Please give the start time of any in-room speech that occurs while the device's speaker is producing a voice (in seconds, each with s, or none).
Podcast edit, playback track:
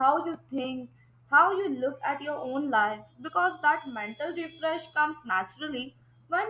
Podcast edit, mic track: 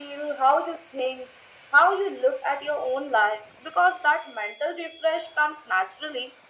none